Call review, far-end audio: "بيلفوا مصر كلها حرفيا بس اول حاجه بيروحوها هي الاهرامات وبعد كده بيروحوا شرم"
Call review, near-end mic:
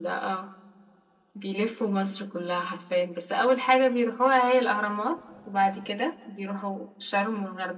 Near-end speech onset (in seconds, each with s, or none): none